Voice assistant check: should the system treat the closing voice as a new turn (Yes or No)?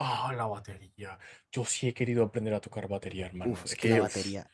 Yes